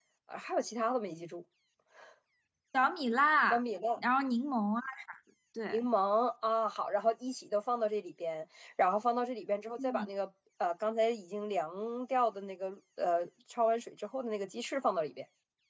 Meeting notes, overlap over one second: none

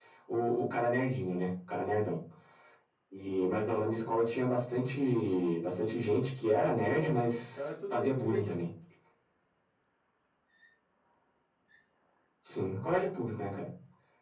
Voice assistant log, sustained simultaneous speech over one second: present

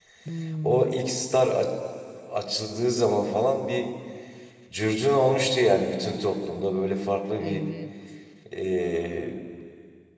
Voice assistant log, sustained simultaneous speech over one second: none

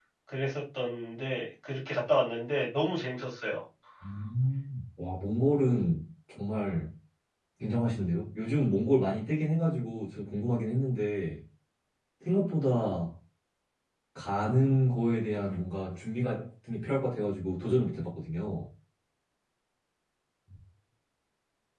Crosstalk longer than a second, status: none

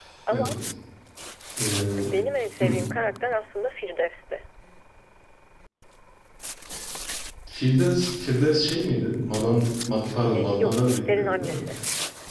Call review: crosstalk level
present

